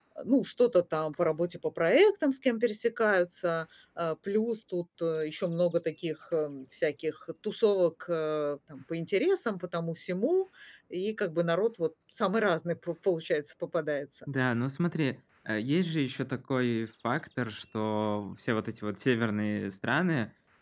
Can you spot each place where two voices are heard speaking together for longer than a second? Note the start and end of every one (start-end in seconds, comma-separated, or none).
none